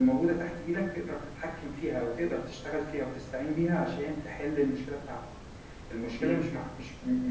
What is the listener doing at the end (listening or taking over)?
listening